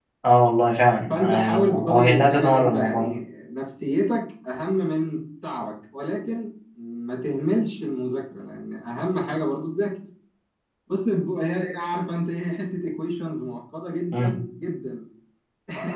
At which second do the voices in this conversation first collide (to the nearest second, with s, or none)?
1 s